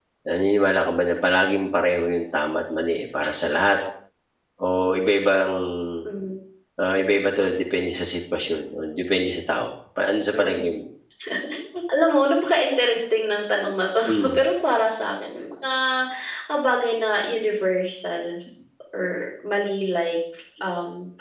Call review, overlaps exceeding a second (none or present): none